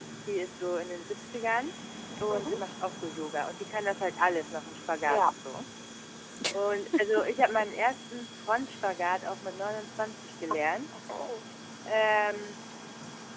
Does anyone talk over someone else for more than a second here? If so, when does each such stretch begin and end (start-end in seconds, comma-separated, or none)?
none